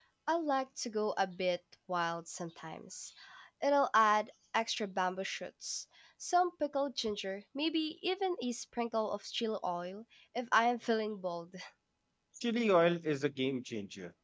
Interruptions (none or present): none